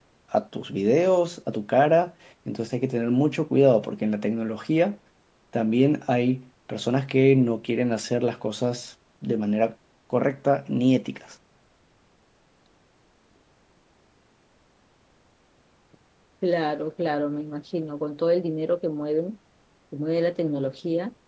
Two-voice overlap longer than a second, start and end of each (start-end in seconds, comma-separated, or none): none